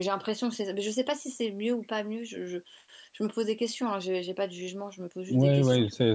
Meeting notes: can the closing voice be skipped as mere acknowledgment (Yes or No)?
No